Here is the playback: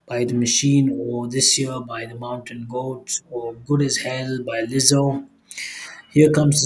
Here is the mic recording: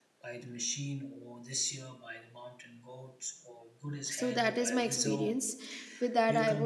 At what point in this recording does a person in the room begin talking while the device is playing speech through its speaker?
4.2 s

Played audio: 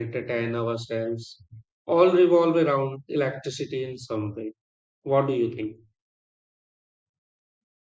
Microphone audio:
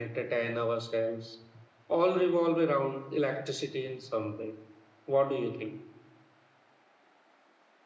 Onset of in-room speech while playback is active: none

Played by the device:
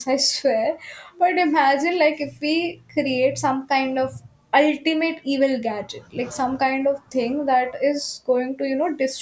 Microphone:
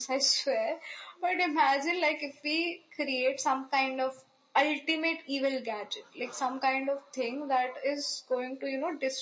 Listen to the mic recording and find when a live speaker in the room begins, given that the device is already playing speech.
none

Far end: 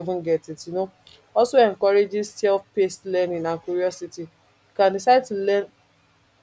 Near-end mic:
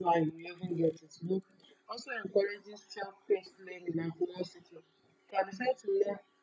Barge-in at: none

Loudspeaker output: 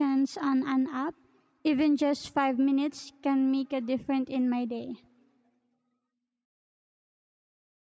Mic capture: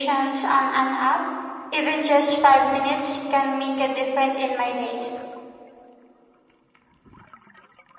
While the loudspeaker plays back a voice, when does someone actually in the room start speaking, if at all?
none

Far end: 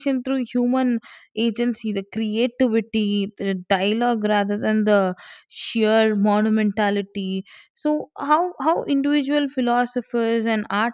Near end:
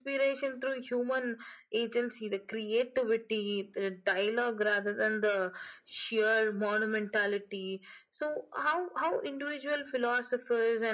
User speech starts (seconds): none

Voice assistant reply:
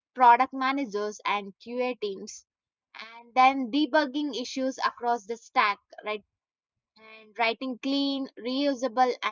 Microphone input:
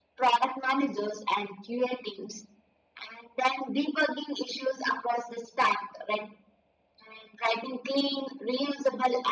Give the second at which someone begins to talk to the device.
none

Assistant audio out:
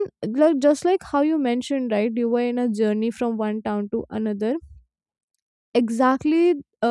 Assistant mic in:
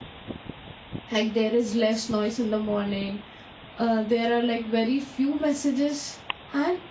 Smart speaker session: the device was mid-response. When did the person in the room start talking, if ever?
1.1 s

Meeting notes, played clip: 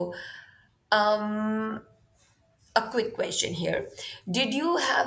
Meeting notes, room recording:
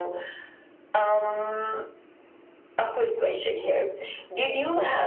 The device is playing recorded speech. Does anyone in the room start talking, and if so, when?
none

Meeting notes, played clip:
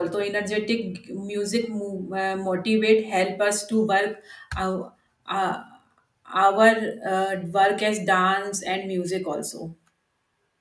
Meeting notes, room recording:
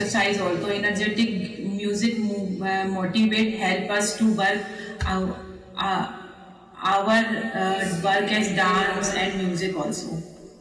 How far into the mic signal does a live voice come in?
7.7 s

